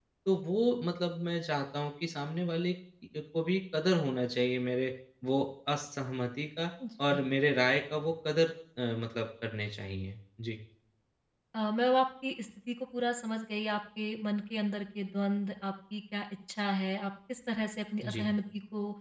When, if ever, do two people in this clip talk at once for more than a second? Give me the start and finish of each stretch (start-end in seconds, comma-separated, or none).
none